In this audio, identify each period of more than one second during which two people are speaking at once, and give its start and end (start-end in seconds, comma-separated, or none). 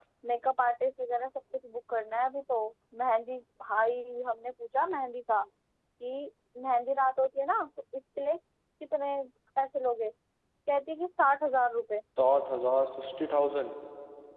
none